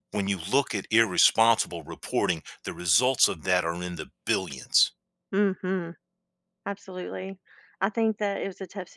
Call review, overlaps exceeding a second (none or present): none